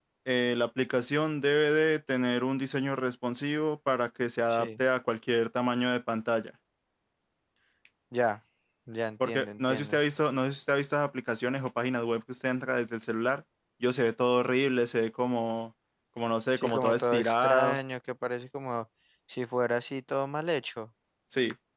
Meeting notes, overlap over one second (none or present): present